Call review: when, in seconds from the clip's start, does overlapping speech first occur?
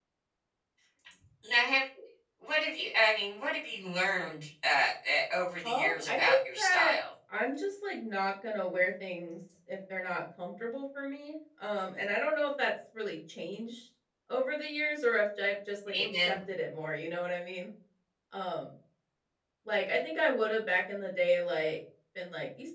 6 s

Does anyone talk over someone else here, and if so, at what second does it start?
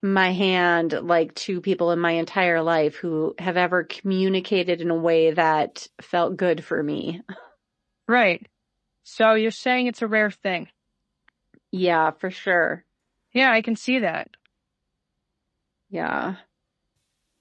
none

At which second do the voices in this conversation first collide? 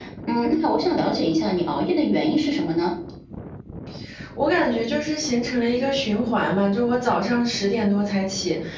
none

